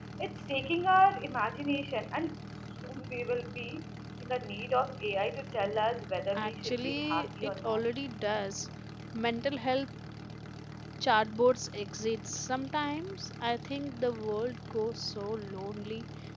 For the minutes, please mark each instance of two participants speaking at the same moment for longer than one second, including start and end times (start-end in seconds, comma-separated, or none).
6.3-7.8